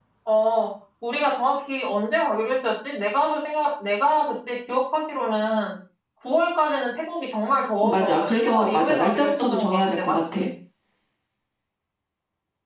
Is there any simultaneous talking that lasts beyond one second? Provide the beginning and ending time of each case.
7.8-10.4

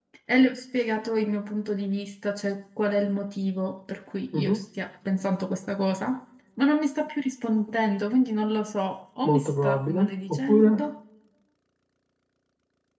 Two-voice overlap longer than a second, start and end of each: 9.2-10.8

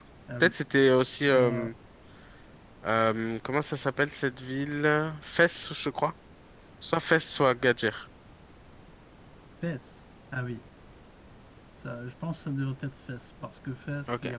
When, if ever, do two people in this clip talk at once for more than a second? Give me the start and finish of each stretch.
none

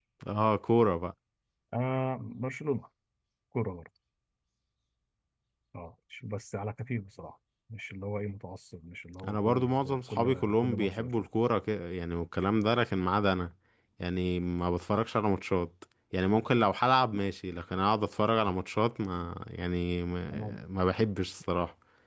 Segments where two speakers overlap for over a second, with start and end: 9.3-11.3

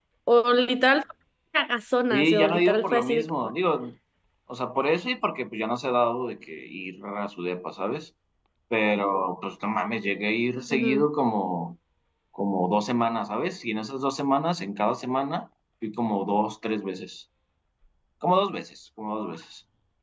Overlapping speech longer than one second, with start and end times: 2.1-3.3

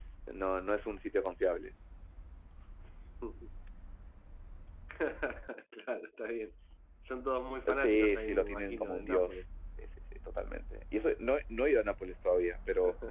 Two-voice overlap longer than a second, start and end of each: 7.8-9.4

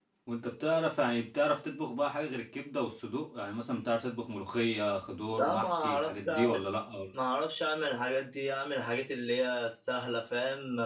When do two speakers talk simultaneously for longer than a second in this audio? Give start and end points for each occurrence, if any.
5.3-6.6

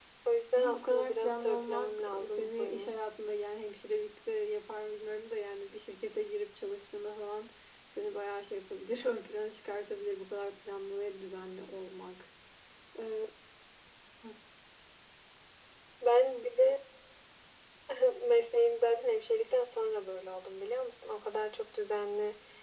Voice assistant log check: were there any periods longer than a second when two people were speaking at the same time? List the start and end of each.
0.6-3.0

